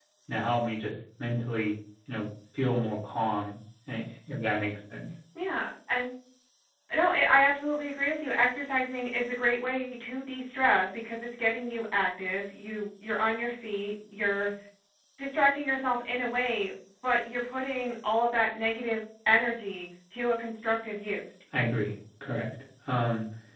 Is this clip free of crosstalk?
Yes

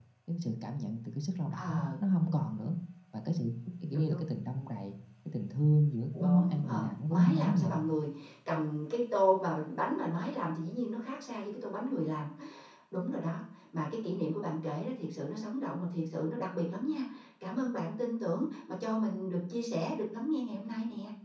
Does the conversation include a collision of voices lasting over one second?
Yes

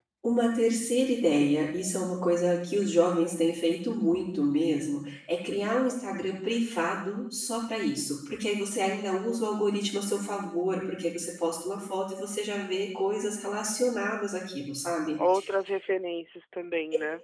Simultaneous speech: Yes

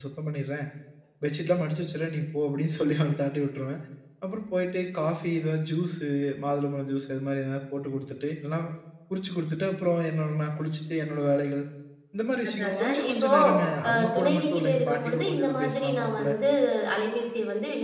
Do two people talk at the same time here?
Yes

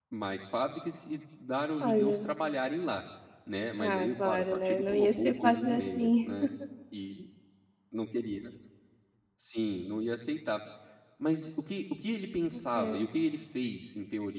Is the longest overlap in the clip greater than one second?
Yes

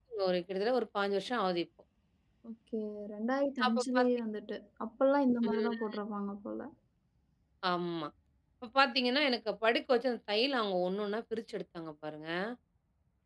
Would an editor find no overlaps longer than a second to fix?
Yes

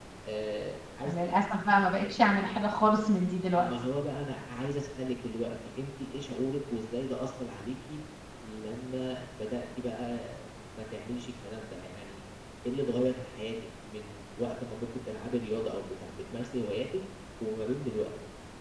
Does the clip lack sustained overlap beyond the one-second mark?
Yes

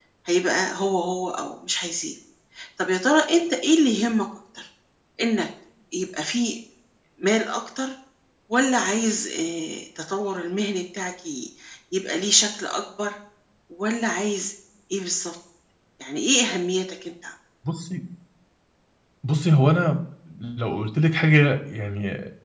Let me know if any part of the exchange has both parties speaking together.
No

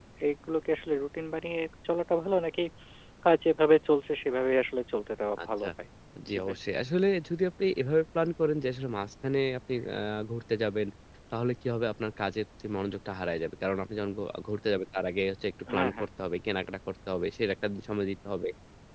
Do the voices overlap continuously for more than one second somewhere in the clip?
No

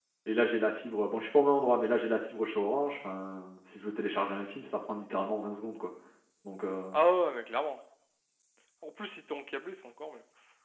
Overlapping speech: No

